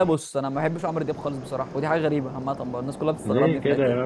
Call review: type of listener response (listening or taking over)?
taking over